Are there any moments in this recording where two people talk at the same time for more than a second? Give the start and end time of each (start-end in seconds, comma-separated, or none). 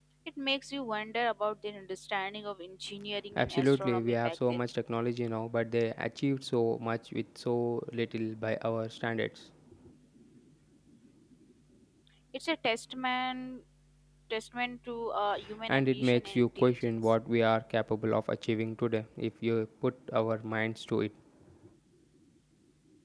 3.4-4.7, 15.7-17.1